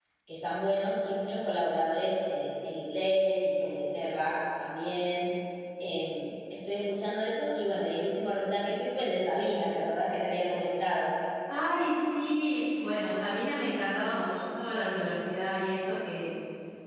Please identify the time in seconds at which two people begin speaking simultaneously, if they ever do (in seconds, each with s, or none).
none